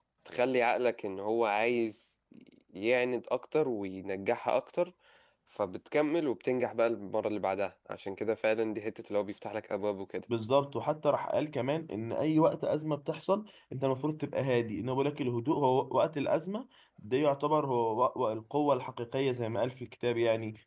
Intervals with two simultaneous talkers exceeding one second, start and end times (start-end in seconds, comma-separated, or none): none